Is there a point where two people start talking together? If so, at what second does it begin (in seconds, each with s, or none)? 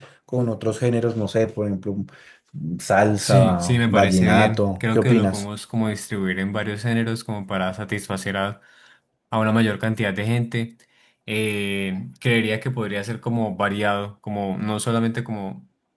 3.2 s